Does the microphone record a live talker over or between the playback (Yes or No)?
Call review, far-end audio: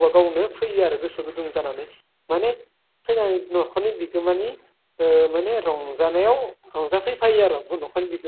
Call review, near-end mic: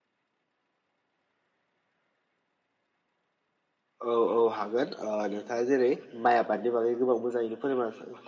Yes